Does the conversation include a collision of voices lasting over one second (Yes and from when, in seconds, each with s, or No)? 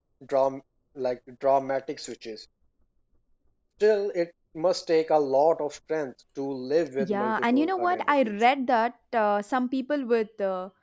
Yes, from 7.0 s